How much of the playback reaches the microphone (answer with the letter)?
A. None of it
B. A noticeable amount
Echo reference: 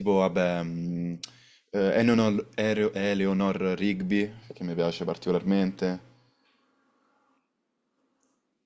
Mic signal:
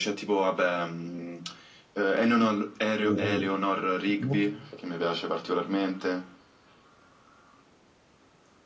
B